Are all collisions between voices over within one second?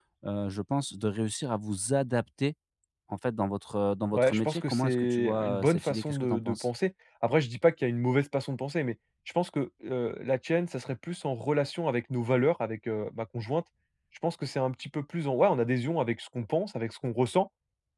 No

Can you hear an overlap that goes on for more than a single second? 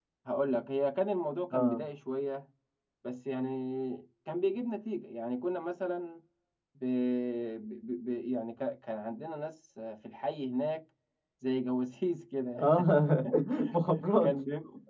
No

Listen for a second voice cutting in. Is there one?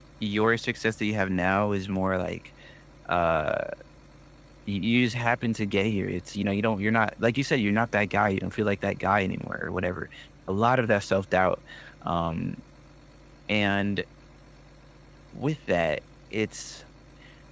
No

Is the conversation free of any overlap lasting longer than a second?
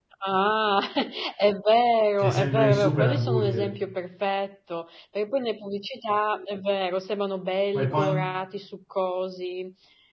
No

